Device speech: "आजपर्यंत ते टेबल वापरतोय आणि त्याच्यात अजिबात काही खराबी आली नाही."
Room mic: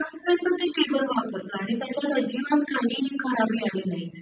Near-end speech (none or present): none